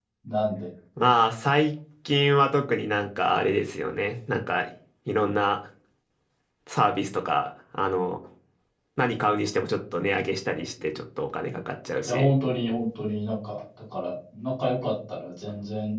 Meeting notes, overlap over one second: none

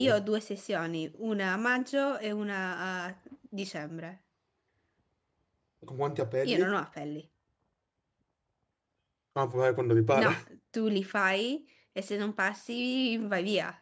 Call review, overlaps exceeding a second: none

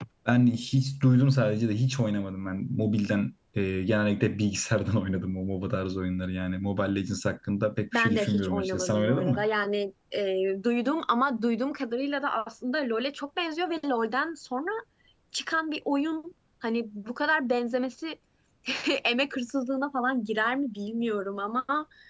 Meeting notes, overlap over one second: present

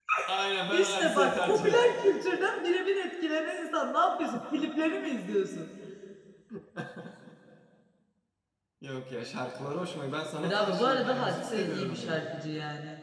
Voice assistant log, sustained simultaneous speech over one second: present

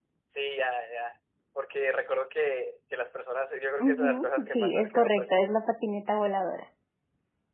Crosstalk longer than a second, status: present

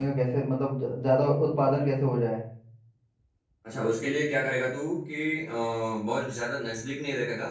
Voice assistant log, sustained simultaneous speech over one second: none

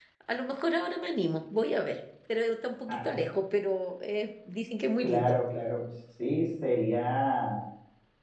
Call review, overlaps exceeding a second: none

